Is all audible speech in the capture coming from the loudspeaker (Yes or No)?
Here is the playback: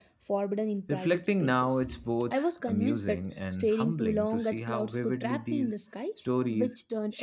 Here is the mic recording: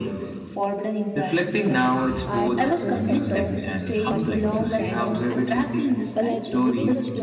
No